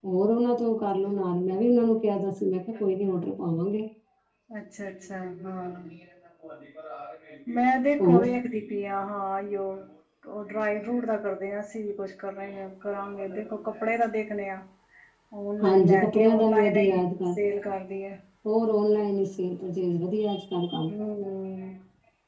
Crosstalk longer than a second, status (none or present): present